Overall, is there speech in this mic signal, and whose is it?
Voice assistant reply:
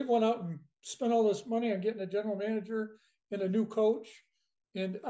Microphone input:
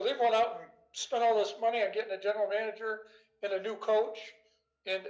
echo only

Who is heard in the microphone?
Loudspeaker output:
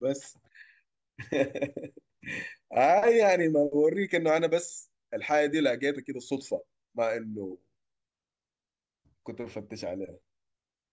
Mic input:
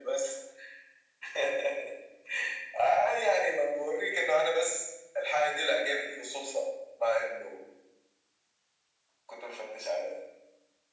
echo only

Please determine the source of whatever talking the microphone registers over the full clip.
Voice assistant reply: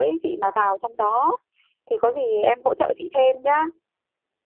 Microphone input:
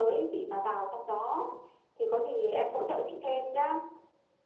echo only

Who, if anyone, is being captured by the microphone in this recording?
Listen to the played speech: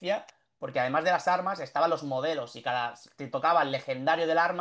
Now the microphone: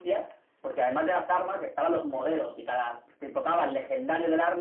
echo only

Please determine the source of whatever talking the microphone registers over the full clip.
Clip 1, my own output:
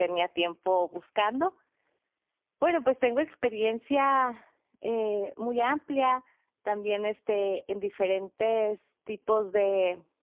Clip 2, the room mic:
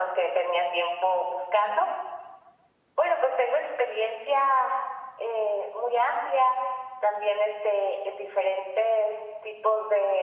echo only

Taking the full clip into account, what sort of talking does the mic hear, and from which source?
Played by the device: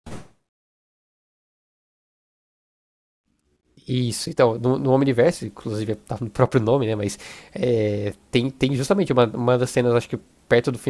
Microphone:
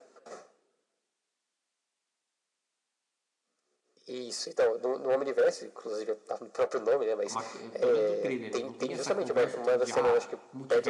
both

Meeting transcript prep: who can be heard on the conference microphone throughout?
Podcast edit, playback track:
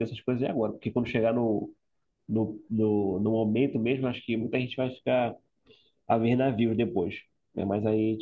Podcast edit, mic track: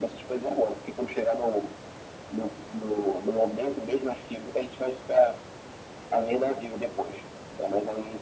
echo only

